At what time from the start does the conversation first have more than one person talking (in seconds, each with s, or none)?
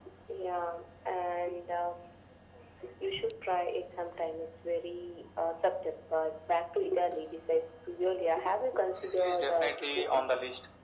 9.0 s